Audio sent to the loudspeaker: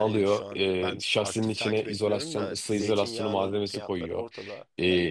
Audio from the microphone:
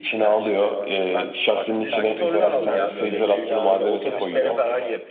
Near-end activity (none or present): present